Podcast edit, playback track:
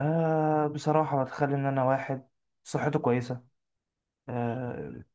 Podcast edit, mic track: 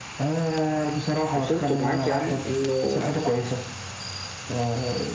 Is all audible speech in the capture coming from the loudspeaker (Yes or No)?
No